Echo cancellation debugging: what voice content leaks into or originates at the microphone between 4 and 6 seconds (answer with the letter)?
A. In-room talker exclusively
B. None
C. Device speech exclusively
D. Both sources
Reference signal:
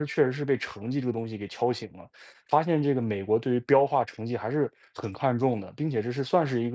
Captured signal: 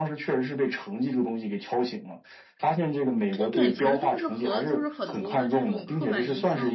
D